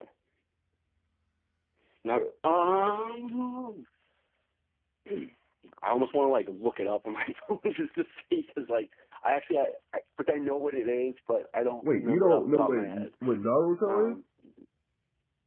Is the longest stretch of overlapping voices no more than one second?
No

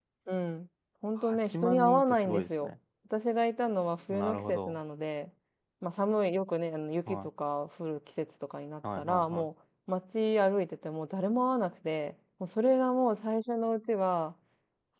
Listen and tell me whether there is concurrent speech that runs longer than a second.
Yes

